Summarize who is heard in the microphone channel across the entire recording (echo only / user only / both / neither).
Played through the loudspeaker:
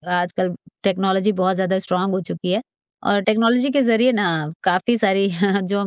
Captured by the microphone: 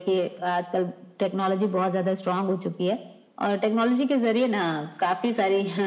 echo only